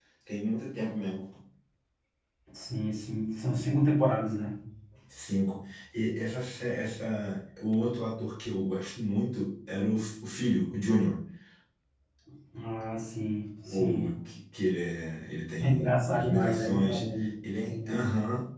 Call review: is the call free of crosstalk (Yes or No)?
No